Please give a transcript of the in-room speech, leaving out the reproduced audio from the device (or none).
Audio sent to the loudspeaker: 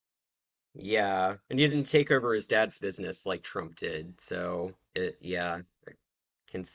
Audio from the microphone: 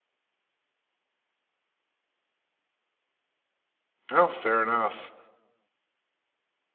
Oh, fair enough.